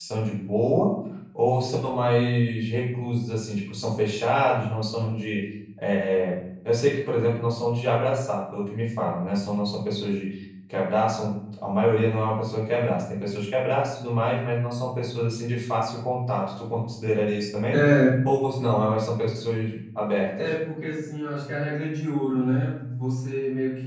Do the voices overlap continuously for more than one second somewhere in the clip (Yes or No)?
No